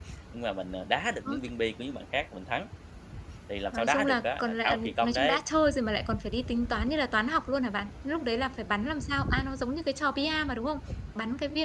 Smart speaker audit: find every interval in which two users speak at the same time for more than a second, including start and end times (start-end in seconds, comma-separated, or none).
3.7-5.4